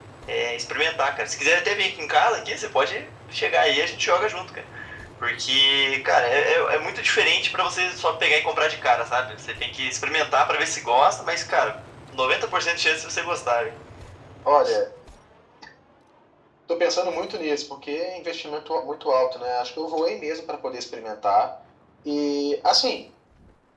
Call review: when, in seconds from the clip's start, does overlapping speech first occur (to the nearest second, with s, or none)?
none